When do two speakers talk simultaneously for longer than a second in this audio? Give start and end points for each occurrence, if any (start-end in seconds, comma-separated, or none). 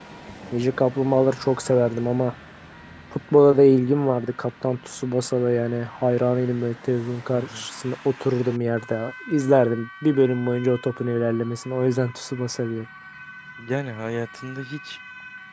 none